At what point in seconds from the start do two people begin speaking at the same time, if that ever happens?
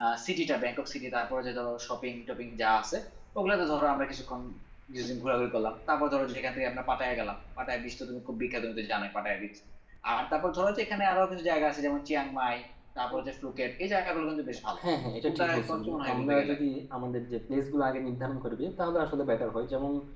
15 s

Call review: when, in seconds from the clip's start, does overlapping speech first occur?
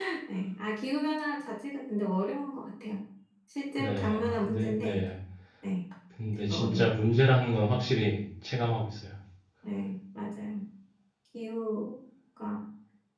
4 s

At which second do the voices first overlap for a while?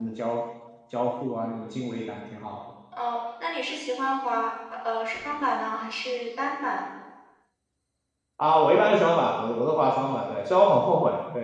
none

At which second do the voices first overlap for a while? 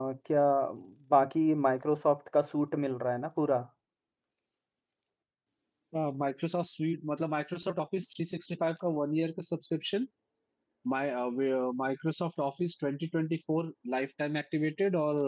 none

